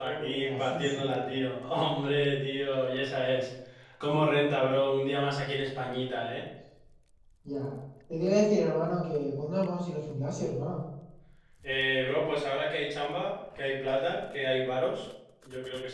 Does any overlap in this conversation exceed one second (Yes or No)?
Yes